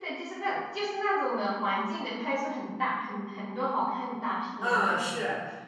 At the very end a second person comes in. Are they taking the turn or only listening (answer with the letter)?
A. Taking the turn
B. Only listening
A